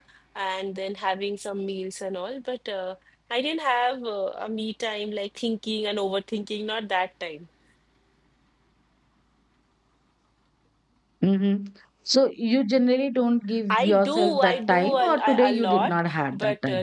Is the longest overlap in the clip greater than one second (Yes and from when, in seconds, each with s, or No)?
Yes, from 13.7 s